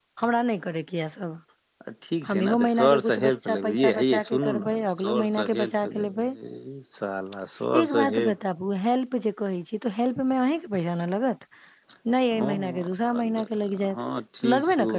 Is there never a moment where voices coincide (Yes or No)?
No